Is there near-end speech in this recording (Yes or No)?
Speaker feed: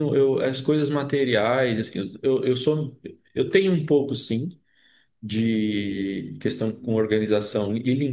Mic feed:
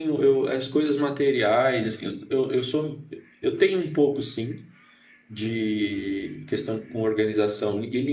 No